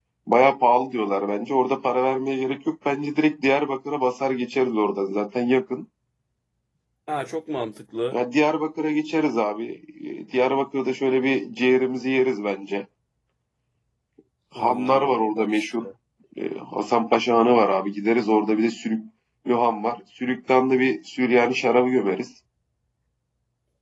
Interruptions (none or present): present